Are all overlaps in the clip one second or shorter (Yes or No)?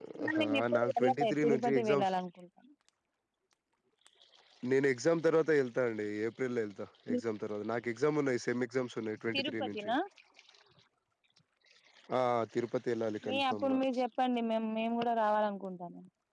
No